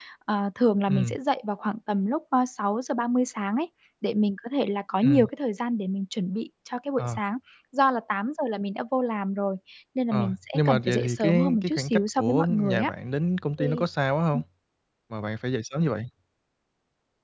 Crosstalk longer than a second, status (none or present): present